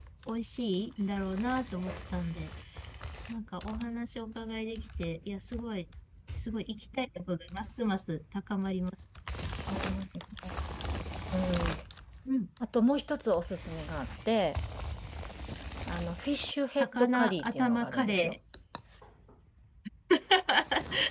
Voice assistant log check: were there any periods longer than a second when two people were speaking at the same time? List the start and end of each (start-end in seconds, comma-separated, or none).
16.7-18.3